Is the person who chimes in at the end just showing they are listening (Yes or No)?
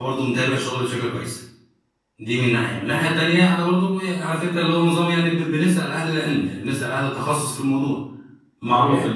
No